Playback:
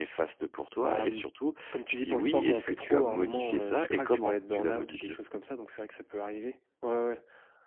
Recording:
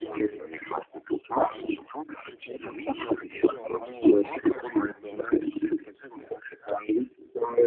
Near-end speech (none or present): none